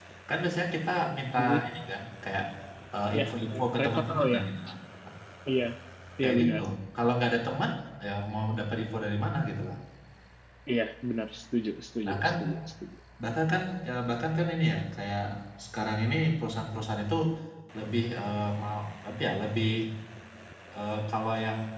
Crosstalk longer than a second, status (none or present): present